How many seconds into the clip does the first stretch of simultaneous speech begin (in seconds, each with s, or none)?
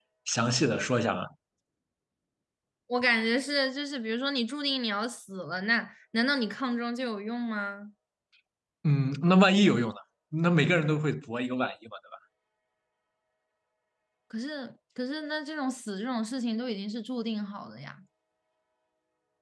none